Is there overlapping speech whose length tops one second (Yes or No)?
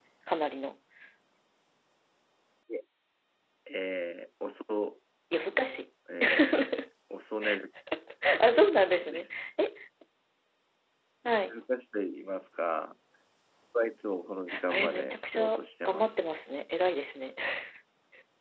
Yes